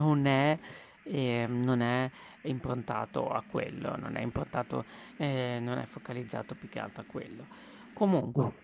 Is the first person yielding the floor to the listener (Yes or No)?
No